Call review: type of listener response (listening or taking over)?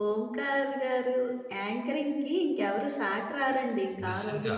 taking over